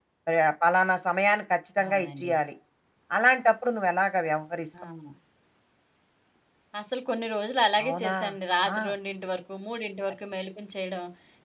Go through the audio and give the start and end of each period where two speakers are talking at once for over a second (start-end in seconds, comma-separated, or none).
none